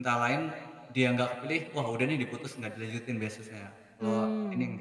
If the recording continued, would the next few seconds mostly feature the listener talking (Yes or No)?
Yes